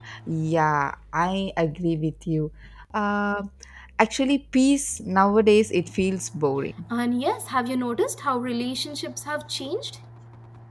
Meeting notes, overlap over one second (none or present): none